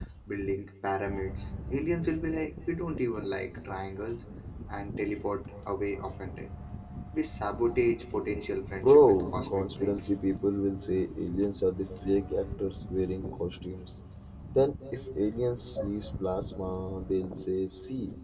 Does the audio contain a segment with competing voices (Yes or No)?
Yes